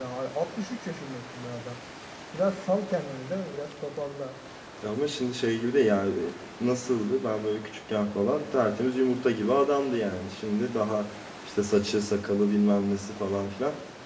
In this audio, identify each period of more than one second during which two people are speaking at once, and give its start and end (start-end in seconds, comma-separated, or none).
none